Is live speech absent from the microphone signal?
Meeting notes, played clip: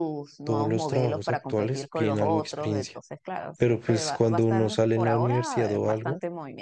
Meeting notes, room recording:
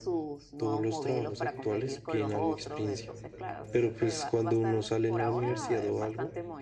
No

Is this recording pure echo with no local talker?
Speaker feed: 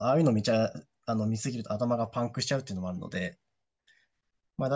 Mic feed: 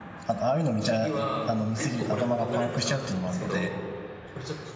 No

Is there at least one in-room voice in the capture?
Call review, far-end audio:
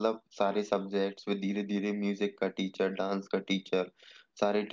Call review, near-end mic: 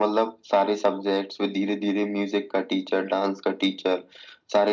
No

